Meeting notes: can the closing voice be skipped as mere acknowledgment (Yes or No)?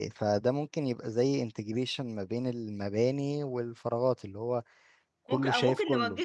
No